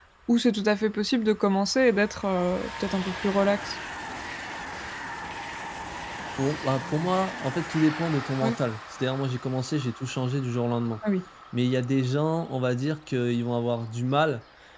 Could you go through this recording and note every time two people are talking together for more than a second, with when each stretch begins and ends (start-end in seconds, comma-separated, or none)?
none